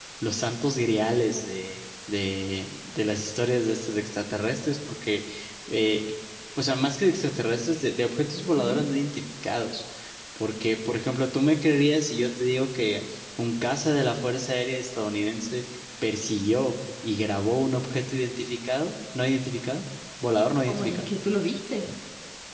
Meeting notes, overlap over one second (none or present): none